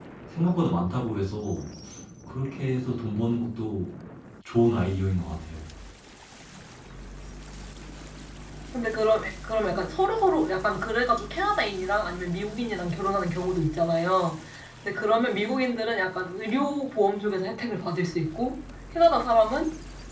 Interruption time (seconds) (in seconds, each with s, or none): none